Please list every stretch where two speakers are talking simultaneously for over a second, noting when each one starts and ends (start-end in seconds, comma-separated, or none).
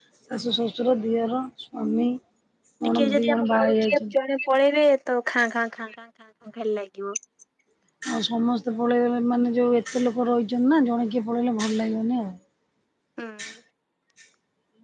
2.9-4.1